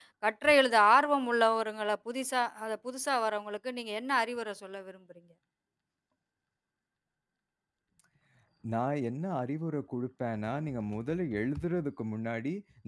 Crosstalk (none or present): none